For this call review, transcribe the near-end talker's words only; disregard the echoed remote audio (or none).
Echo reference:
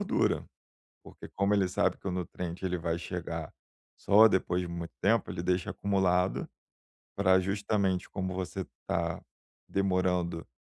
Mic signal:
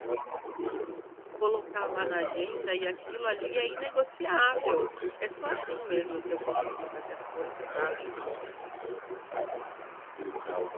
colocar lá na agenda e aquilo ali é inegociável, é só assim mesmo para eu conseguir fazer as coisas, sabe.